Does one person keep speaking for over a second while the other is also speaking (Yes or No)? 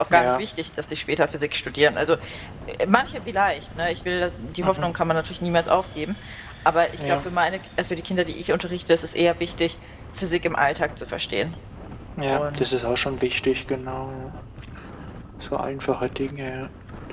No